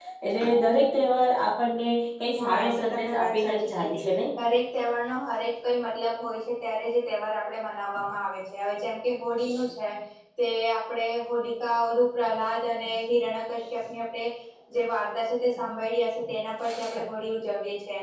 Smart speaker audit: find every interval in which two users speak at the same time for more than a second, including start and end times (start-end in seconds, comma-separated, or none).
2.4-4.1